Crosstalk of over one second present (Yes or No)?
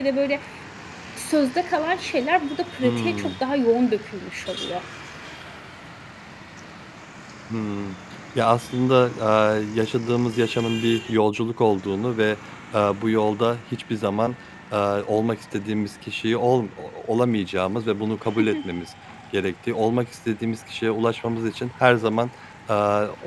No